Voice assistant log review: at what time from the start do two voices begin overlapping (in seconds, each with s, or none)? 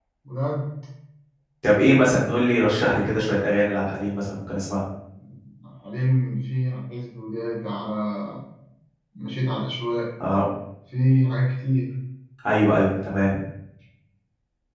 none